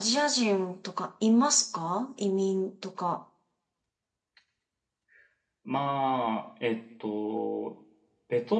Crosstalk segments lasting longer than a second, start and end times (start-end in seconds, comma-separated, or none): none